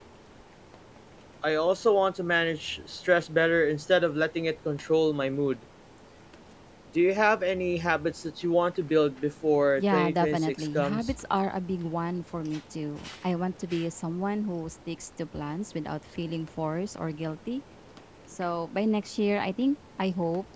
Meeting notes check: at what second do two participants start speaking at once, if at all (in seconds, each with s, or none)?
9.8 s